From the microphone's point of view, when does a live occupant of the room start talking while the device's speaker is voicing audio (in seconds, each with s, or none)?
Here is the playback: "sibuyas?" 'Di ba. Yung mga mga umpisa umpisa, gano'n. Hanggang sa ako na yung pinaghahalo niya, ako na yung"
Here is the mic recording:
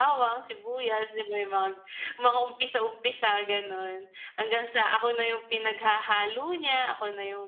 none